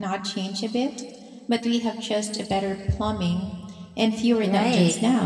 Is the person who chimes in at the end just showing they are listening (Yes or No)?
No